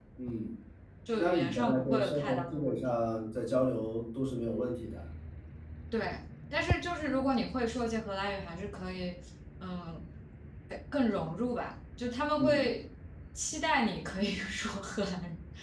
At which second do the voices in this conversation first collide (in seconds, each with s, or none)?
1.1 s